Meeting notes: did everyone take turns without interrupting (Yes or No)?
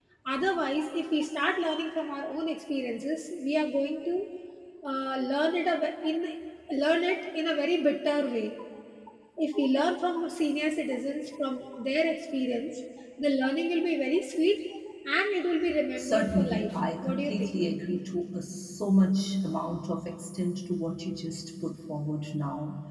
No